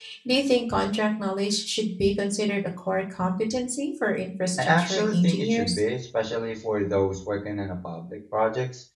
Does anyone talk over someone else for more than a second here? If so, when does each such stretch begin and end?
4.6-5.8

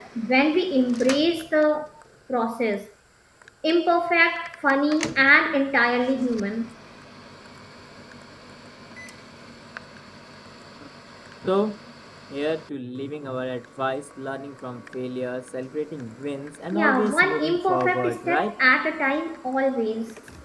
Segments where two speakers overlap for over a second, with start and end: 16.7-18.6

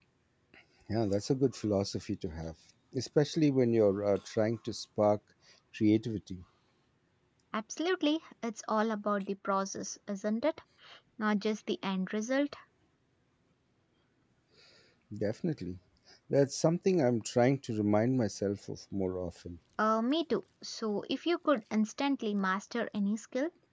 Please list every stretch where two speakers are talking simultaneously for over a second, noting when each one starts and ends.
none

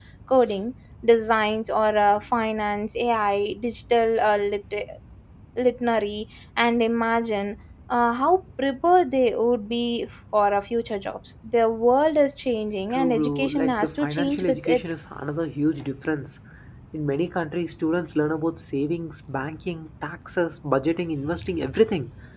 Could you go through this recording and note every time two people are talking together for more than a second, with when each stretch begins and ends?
12.9-14.8

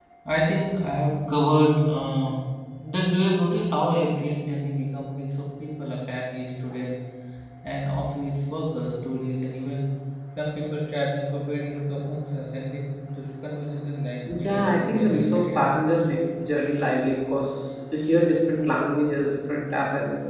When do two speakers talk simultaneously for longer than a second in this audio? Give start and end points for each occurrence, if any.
14.4-15.8

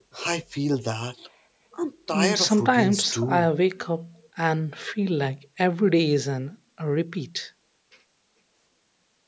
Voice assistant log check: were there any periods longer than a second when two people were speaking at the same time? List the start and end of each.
2.1-3.5

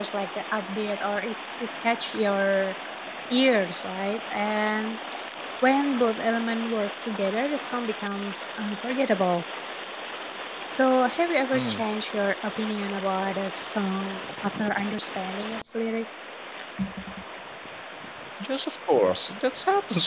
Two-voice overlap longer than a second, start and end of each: none

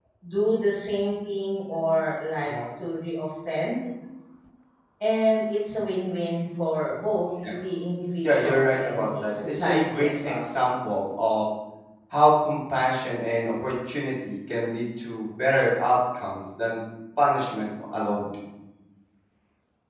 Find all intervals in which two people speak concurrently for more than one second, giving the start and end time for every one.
8.2-10.4

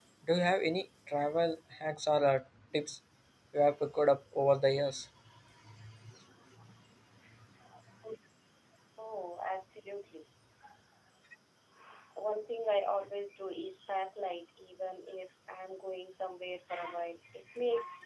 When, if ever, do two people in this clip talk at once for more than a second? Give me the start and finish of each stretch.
none

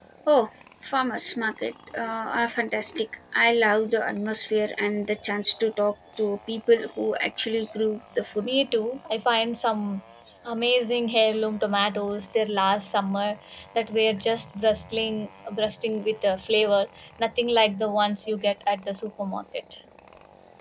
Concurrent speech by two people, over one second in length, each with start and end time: none

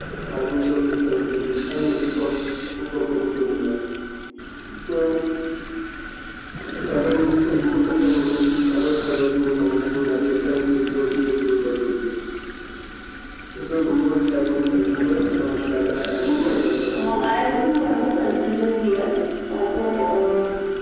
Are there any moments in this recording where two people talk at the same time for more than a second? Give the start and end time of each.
16.2-17.6

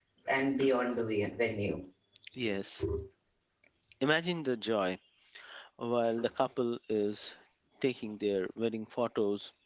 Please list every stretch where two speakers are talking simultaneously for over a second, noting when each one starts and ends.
none

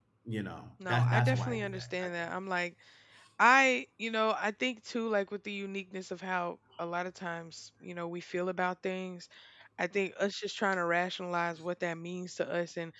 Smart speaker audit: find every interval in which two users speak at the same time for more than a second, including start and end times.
0.8-2.1

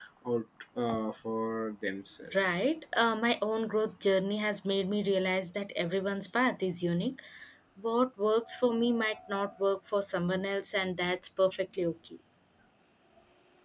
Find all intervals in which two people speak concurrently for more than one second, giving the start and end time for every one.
none

